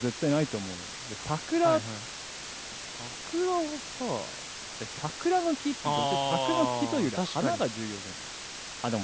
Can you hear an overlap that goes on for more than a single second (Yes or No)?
Yes